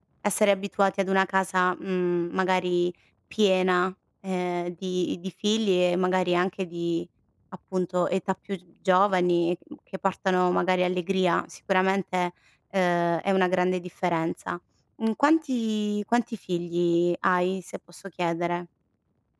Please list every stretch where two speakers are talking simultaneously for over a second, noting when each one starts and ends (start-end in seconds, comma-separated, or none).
none